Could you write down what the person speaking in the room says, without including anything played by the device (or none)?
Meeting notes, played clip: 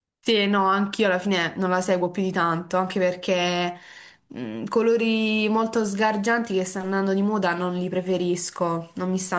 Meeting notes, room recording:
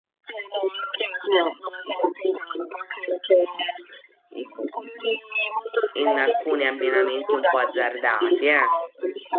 in alcuni abbinamenti un po' azzardati, eh.